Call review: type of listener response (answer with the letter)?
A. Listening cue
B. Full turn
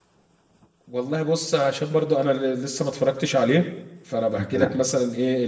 A